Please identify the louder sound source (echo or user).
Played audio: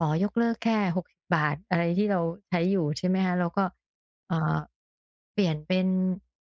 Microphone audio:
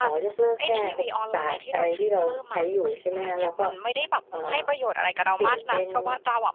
echo